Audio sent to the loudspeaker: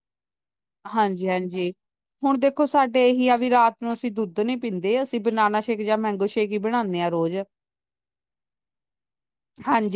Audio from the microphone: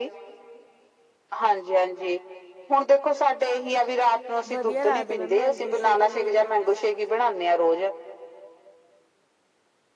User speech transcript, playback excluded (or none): ਵਧੀਆ ਲੱਗਦਾ ਮੈਮ ਮੈਂਗੋ ਸ਼ੇਕ ਵੀ ਬਣਾਉਣਾ ਸੀ